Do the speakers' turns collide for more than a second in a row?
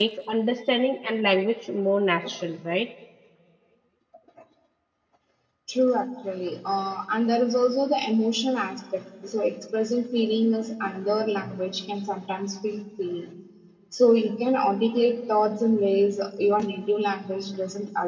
No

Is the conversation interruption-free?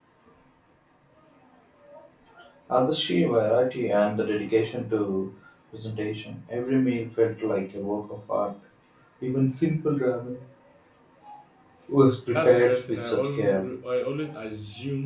No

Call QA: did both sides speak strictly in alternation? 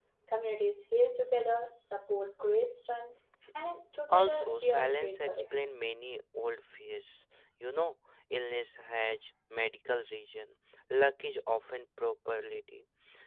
No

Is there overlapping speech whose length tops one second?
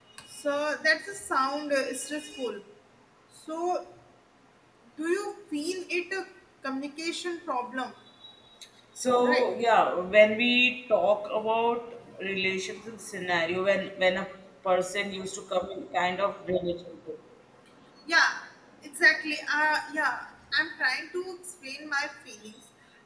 No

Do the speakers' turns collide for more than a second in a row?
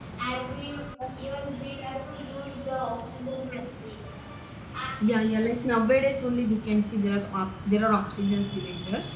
No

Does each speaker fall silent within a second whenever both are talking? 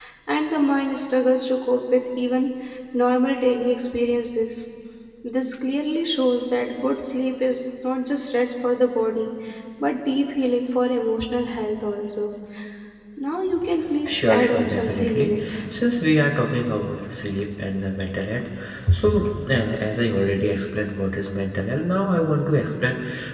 No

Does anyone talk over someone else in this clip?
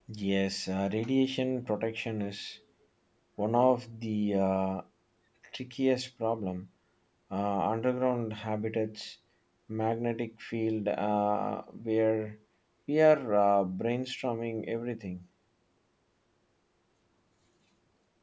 No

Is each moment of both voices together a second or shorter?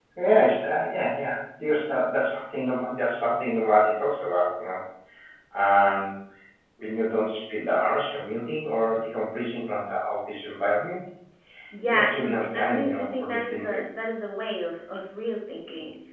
No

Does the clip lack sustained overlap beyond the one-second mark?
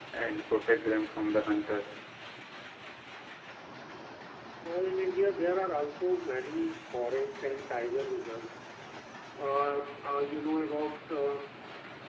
Yes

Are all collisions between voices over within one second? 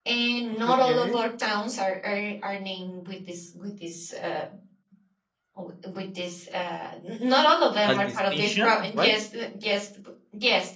No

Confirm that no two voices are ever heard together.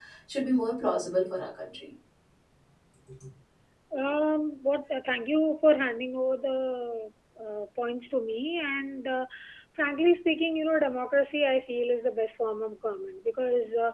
Yes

